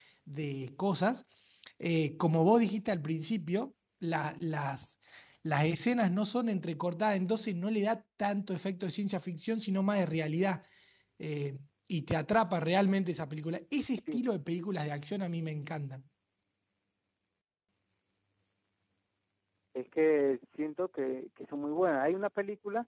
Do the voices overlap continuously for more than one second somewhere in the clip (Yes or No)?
No